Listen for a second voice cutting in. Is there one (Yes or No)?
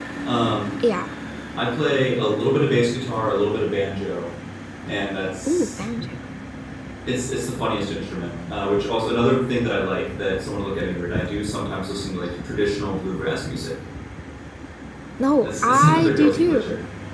Yes